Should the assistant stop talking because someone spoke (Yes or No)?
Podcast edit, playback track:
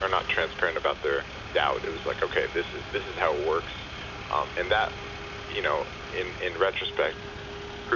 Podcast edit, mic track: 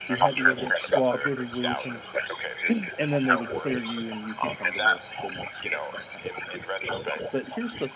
Yes